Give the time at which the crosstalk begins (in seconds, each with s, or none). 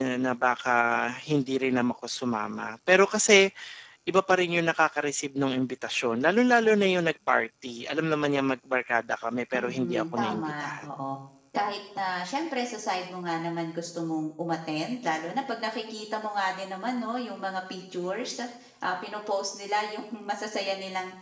9.5 s